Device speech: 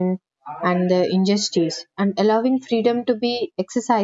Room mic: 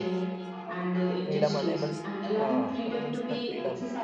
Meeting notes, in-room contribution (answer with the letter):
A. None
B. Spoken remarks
B